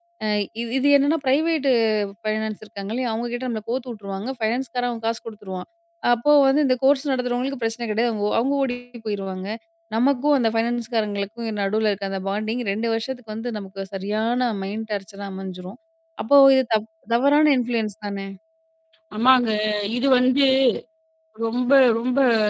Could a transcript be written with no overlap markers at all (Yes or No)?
Yes